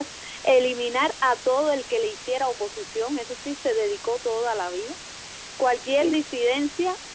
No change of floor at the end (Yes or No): Yes